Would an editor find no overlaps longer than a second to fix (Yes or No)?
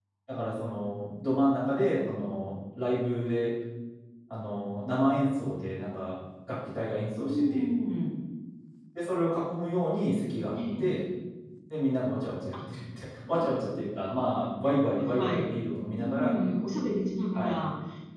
Yes